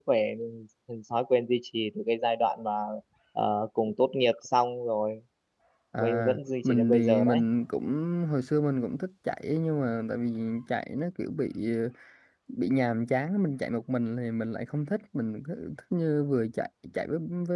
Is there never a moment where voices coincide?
No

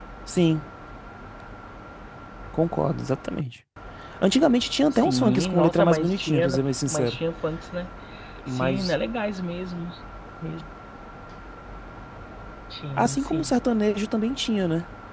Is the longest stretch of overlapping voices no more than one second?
No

